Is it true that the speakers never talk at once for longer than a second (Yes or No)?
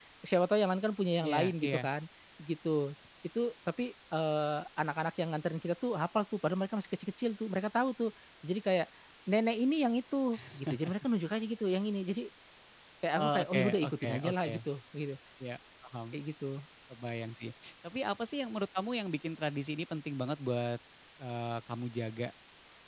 No